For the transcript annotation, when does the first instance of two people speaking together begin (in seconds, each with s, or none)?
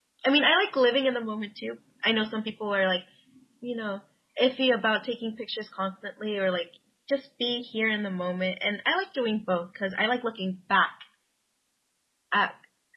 none